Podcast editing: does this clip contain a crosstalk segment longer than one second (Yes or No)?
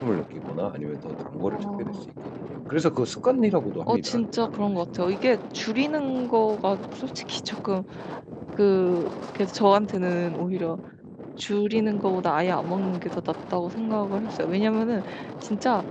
Yes